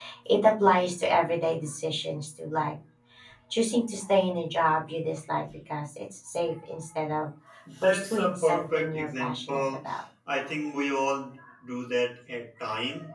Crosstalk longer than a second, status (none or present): present